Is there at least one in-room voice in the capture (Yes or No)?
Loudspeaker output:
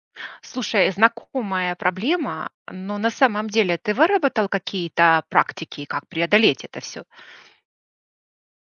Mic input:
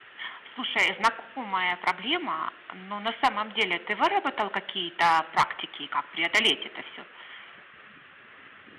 No